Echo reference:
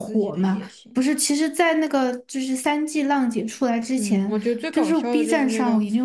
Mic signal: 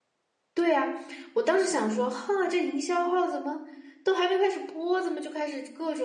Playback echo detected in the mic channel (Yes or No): No